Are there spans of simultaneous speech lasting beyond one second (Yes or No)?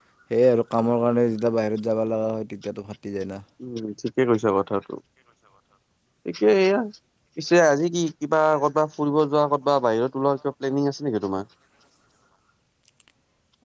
No